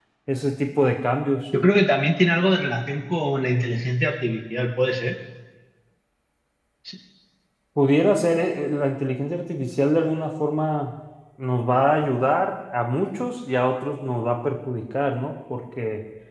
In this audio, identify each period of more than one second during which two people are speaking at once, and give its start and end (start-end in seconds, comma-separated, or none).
none